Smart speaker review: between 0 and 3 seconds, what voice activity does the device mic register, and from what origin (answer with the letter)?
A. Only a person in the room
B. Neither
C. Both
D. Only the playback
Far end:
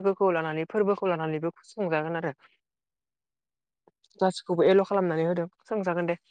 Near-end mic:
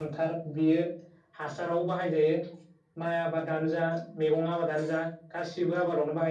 A